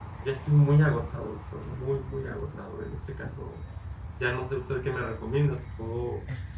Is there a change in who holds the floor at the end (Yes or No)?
No